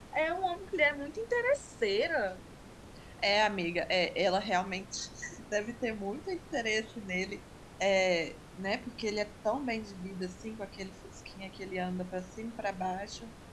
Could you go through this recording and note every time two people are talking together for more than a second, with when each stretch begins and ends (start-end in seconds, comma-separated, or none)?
none